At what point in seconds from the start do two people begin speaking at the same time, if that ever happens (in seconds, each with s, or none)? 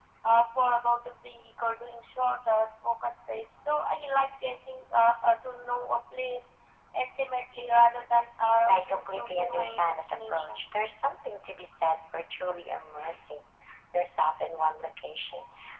8.4 s